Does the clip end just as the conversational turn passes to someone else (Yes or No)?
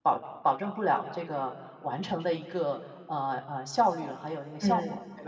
Yes